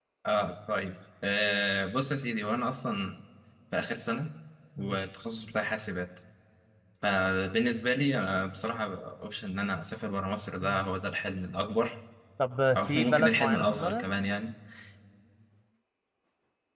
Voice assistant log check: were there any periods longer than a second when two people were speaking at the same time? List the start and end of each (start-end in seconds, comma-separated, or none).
12.8-14.0